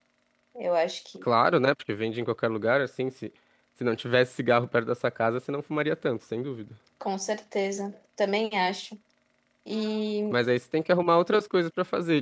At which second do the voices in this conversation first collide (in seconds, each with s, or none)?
none